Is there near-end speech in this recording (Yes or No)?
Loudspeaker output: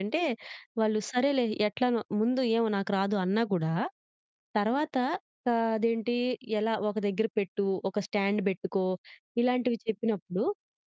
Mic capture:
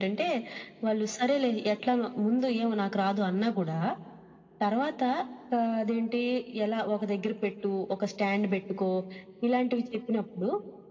No